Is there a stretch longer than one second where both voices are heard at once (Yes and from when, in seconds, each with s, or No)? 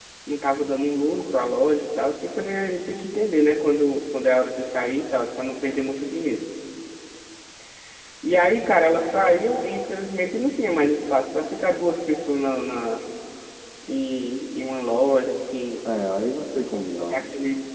No